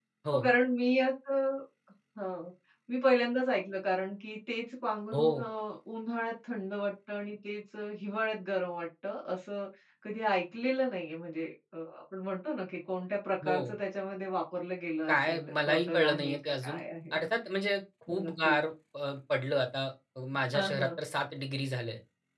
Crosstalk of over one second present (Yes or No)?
Yes